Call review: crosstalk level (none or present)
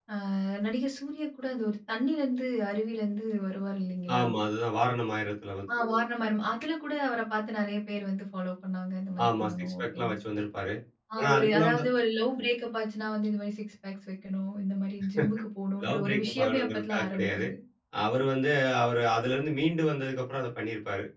present